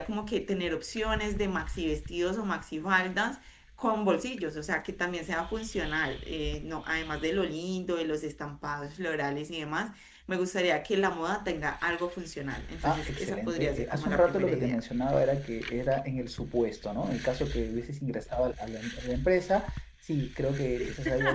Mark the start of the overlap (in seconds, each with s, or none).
12.8 s